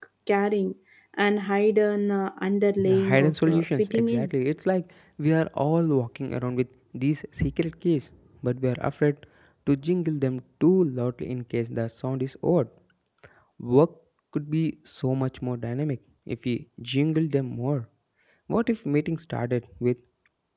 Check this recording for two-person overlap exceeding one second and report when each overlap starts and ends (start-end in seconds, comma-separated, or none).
2.8-4.3